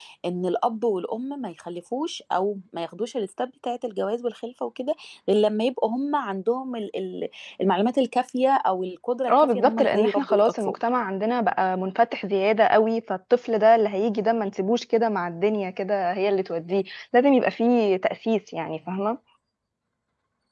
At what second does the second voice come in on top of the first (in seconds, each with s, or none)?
9.3 s